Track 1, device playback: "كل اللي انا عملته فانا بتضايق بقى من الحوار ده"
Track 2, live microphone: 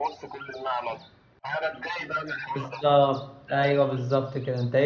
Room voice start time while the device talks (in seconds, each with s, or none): 2.5 s